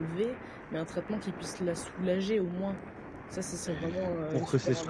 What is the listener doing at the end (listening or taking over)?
taking over